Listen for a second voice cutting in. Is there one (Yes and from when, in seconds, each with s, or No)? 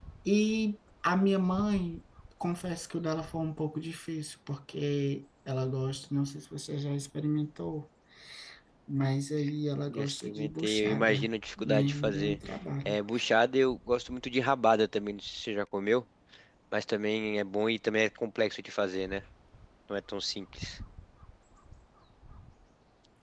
Yes, from 9.9 s